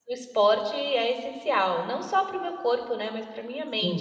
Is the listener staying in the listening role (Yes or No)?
No